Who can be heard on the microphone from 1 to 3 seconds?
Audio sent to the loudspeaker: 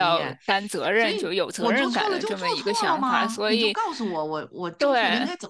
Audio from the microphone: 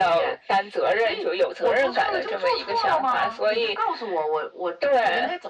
echo only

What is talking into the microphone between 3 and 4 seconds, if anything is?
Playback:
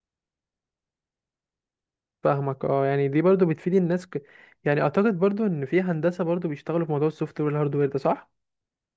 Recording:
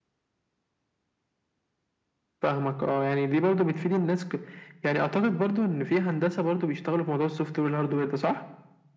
echo only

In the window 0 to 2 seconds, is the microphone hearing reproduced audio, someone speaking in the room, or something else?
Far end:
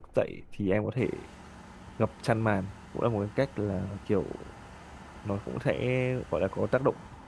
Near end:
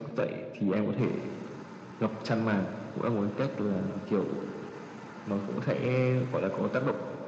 echo only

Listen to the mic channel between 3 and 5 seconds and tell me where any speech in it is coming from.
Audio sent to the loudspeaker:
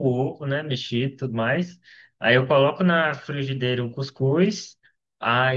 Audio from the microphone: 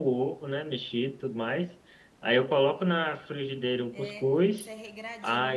both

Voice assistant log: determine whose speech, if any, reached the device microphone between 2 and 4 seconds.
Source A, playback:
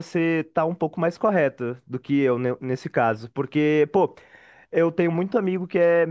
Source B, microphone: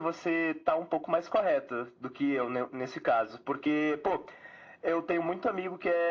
echo only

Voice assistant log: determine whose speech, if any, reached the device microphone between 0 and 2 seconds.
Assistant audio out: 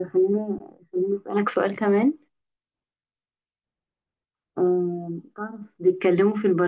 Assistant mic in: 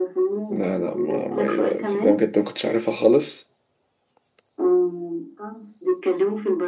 both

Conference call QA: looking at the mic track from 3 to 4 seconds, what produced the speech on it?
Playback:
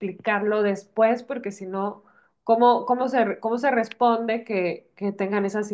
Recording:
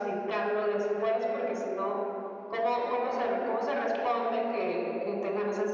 echo only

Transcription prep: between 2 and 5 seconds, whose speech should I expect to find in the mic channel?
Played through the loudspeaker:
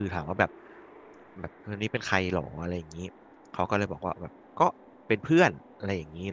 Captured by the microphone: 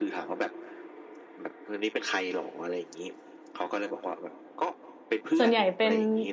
echo only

